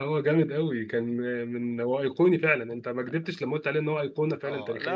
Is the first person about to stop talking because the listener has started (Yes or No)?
Yes